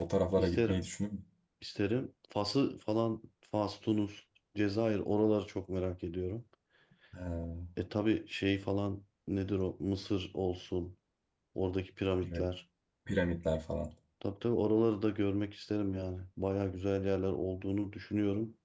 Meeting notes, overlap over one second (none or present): none